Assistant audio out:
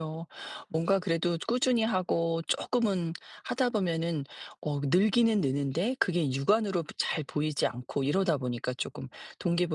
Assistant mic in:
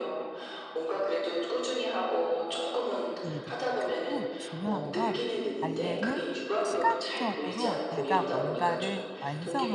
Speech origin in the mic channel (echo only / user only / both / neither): both